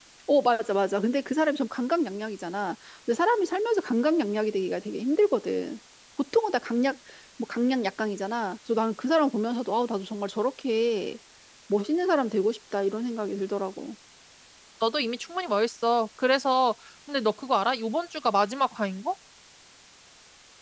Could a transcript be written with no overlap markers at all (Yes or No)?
Yes